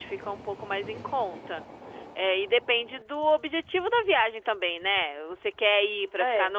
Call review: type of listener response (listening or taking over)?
listening